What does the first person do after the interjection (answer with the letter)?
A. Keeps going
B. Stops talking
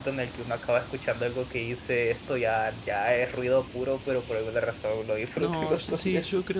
B